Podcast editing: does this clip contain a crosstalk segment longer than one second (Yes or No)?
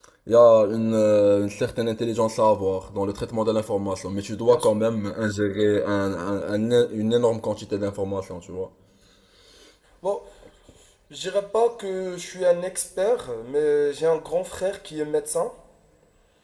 No